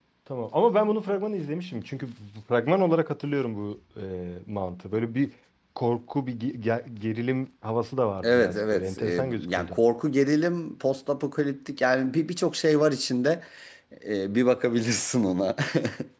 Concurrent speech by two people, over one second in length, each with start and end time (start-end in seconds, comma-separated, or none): 8.2-9.8